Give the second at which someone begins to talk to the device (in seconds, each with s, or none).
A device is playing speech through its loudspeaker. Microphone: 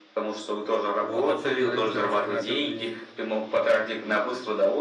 1.0 s